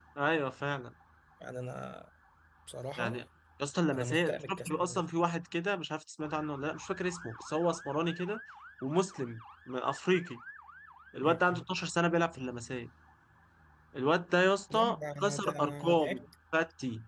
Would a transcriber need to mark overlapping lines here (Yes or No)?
Yes